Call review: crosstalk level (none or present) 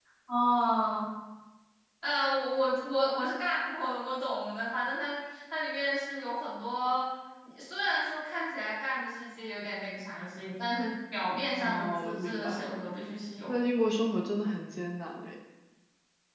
present